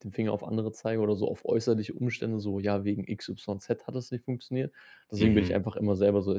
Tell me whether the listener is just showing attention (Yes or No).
Yes